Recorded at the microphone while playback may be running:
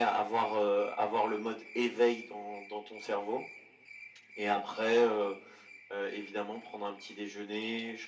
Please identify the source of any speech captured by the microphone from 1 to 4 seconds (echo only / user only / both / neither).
echo only